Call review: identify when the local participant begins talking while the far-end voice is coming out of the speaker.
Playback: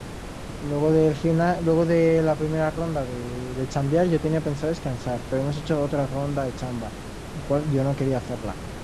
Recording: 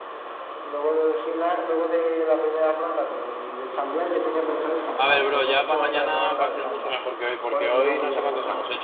5.0 s

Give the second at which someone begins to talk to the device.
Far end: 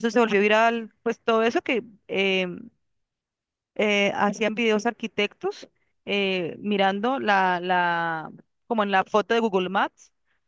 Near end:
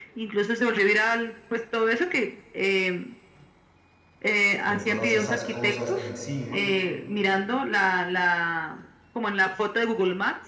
4.6 s

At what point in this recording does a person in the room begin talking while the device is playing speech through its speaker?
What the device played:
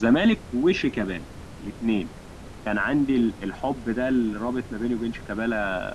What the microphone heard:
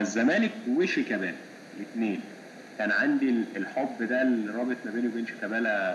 none

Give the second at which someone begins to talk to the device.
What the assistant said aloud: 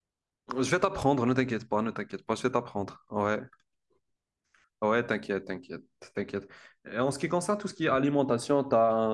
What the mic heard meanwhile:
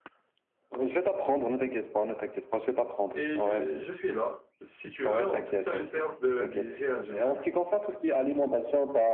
3.1 s

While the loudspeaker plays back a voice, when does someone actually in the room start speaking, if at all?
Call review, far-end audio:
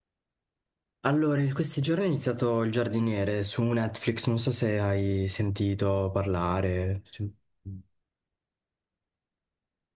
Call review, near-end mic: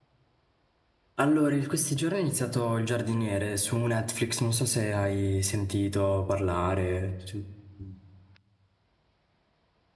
none

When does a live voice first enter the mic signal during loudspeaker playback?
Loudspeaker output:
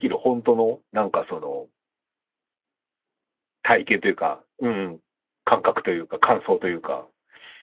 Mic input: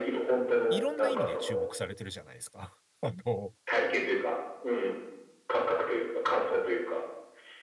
0.7 s

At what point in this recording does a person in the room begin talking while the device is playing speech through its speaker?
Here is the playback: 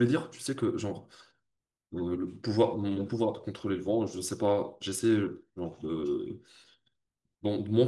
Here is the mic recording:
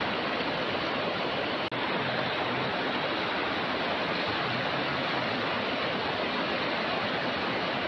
none

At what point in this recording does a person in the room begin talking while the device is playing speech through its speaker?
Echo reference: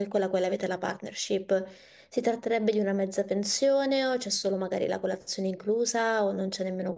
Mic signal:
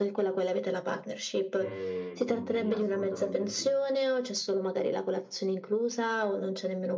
1.6 s

